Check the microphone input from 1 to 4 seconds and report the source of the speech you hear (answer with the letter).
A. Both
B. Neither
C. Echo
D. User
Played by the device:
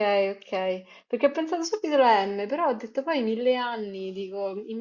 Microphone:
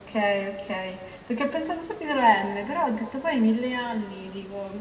C